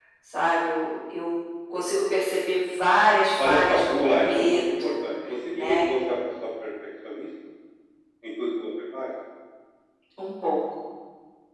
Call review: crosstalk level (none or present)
present